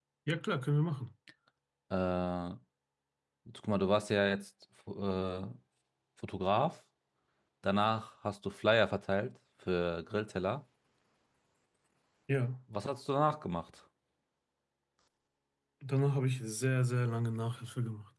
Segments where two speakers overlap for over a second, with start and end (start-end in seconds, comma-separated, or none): none